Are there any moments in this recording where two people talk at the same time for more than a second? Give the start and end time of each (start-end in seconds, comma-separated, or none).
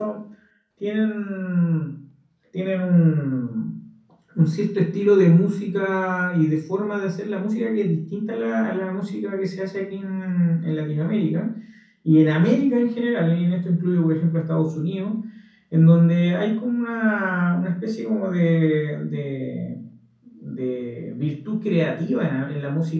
none